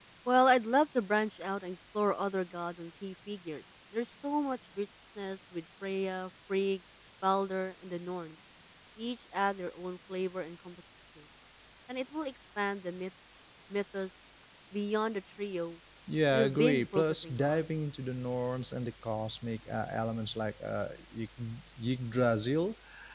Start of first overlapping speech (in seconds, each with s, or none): 16.3 s